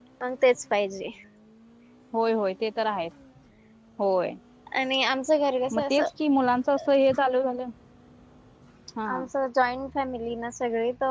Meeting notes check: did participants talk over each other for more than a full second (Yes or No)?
No